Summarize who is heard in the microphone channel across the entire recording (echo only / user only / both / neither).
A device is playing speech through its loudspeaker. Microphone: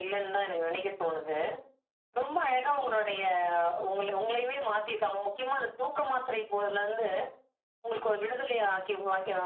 echo only